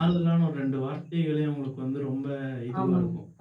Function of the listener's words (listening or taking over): listening